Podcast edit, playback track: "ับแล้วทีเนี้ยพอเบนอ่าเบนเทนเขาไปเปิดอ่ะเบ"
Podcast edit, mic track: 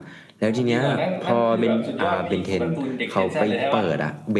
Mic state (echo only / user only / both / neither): both